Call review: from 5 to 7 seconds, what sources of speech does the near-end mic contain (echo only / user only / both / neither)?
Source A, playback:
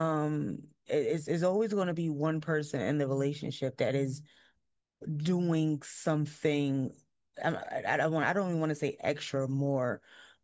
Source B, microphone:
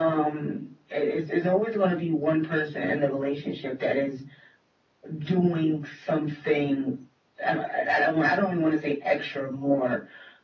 echo only